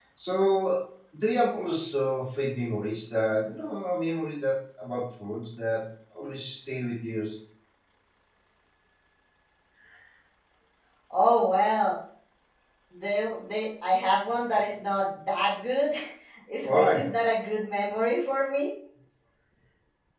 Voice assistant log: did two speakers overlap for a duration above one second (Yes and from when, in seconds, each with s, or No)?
No